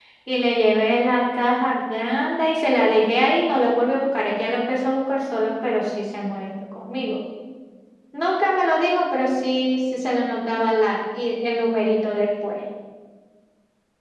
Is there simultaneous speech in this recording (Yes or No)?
No